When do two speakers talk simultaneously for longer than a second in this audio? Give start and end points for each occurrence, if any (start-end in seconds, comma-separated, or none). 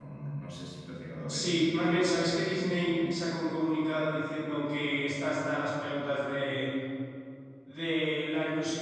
1.3-3.4